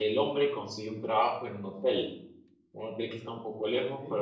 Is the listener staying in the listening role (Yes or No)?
Yes